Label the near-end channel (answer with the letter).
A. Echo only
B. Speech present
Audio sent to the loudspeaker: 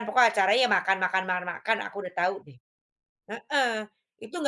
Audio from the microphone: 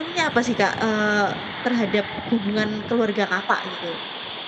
B